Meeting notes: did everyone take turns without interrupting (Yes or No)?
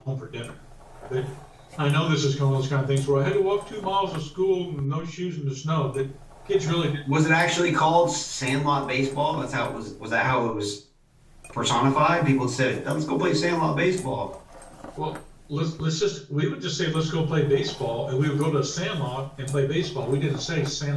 Yes